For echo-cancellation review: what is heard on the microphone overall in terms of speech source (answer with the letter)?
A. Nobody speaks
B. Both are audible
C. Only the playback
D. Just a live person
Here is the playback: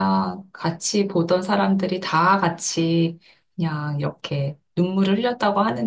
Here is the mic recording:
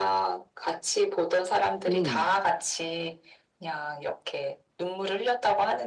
B